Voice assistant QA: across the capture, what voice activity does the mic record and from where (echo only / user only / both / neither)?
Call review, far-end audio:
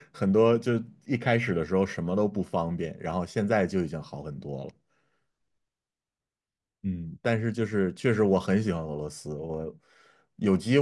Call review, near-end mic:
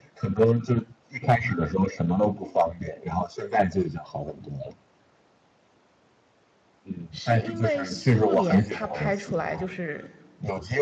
both